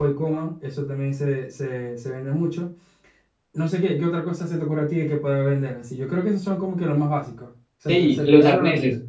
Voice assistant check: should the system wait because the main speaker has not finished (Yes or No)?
No